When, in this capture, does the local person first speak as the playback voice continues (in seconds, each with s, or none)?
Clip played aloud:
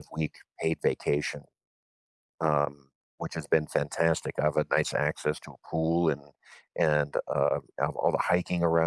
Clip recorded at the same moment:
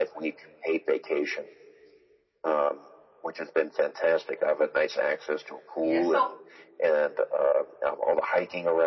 5.8 s